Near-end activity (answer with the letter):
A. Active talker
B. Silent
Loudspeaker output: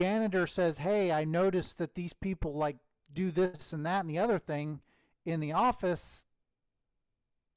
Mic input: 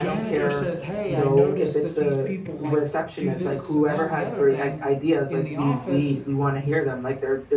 A